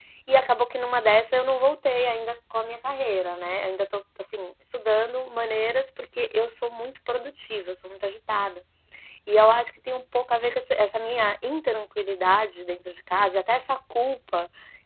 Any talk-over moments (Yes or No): No